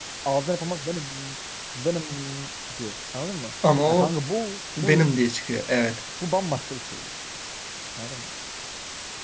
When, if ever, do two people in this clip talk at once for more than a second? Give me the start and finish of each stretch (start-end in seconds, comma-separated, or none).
none